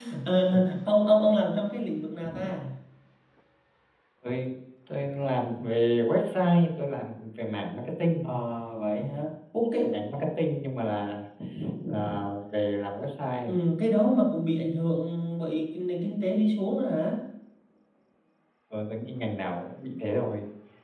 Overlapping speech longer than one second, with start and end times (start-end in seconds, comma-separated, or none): none